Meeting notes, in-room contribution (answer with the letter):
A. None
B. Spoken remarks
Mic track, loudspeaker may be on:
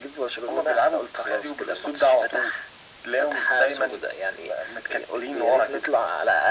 A